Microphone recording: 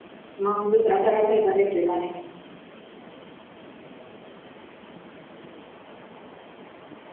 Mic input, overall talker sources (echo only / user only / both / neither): user only